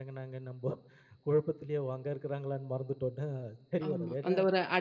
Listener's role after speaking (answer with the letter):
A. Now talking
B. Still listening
A